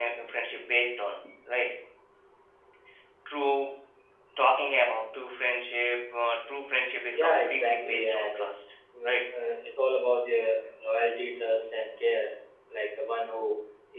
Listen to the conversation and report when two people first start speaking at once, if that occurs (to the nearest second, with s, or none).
7 s